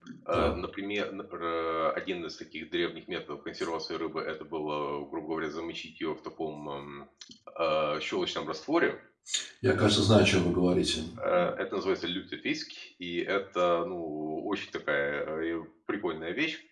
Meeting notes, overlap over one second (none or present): none